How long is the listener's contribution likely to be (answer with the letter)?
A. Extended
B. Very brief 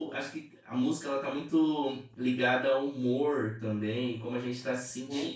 B